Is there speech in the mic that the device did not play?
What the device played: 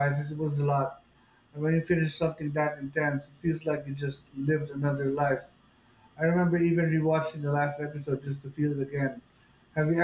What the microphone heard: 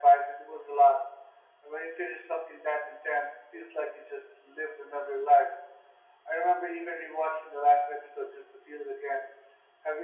No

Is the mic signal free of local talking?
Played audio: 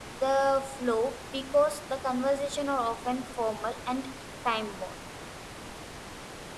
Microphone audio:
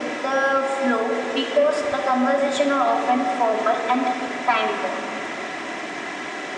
Yes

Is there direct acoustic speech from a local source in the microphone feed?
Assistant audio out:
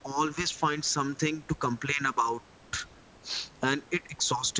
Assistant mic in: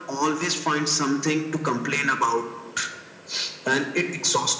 No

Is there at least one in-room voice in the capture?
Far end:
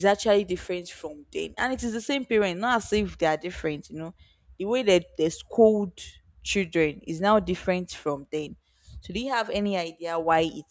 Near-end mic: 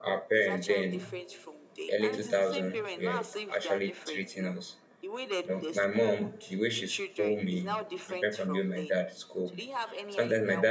Yes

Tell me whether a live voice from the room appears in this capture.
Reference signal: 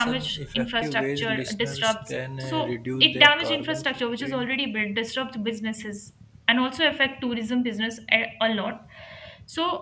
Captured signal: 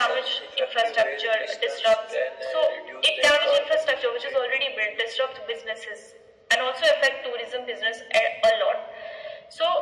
No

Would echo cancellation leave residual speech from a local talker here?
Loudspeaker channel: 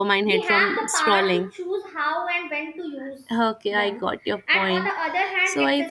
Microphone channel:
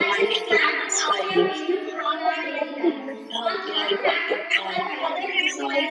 Yes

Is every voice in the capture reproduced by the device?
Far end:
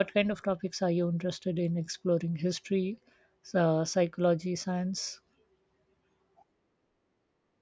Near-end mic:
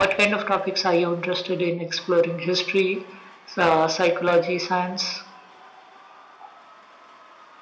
Yes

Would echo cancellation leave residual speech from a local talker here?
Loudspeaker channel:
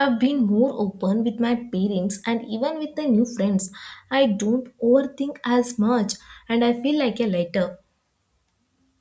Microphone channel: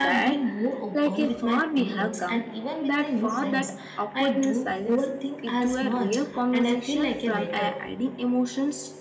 Yes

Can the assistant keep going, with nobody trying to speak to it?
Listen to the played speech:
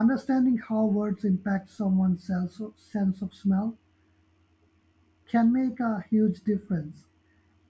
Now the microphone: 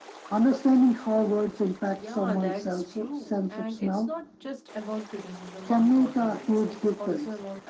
No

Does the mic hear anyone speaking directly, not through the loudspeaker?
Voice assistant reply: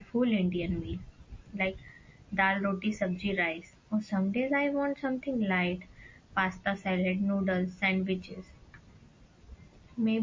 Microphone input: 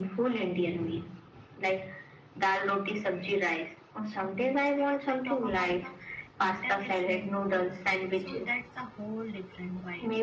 Yes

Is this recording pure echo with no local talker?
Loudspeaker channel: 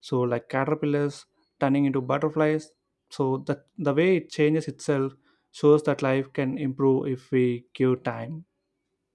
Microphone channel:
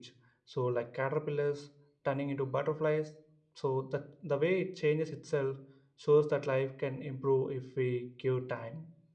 Yes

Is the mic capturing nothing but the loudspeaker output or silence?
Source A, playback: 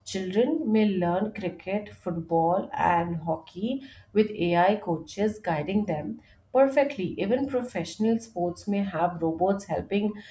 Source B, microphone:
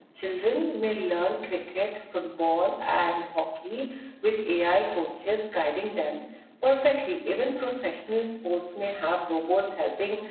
Yes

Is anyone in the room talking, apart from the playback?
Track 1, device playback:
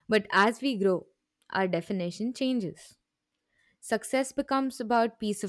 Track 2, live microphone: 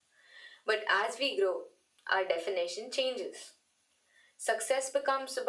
No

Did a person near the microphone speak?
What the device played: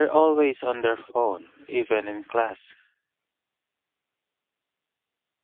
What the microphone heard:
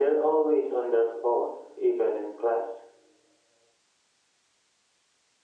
No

